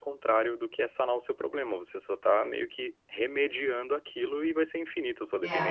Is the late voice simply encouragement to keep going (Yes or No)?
No